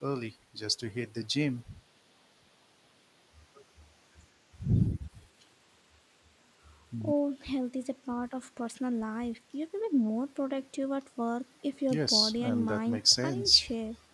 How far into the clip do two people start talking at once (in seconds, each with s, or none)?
11.9 s